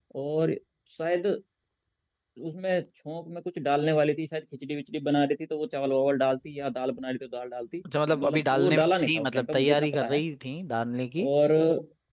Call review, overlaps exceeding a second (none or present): present